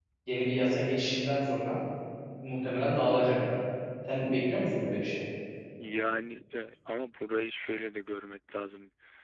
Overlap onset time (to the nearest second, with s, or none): none